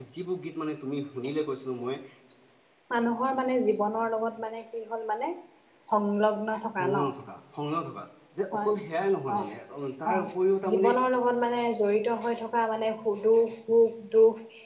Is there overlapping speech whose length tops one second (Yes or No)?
No